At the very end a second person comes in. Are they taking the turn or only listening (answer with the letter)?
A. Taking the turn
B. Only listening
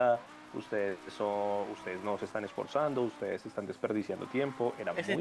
A